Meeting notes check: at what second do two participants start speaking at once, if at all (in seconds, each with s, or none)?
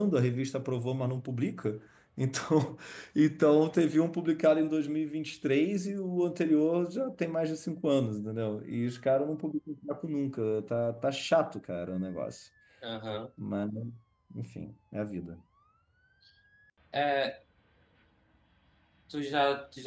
none